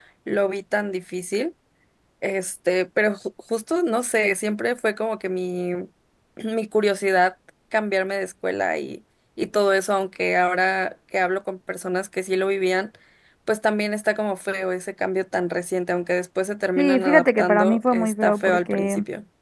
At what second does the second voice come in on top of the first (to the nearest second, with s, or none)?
17 s